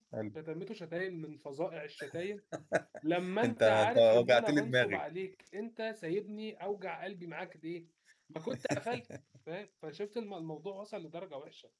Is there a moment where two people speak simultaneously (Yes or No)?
Yes